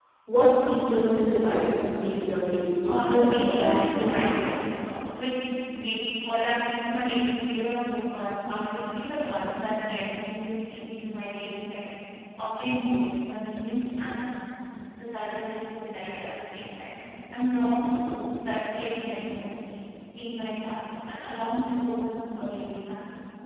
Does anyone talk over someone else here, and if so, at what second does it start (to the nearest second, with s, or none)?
3 s